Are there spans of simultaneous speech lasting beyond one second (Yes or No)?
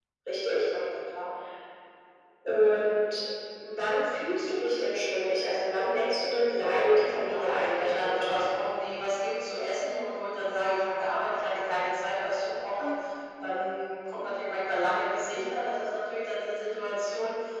Yes